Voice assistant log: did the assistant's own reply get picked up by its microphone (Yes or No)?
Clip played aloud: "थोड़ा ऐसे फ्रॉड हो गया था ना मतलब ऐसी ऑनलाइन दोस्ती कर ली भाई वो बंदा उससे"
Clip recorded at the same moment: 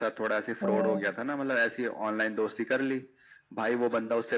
Yes